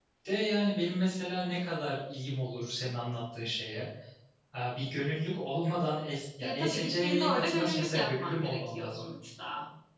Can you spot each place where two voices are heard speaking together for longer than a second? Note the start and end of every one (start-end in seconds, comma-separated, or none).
6.4-9.1